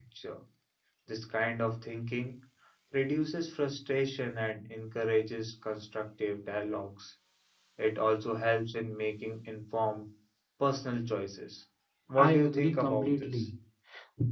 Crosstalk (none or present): present